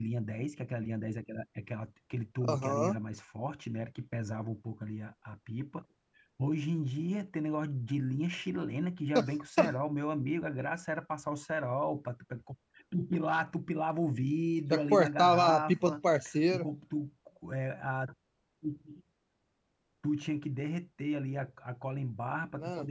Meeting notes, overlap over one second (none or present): present